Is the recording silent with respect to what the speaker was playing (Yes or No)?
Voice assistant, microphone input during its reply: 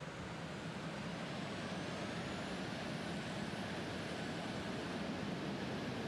Yes